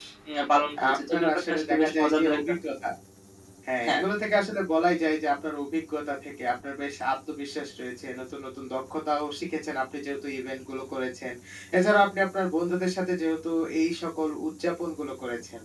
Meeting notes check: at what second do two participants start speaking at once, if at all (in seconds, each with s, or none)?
0.9 s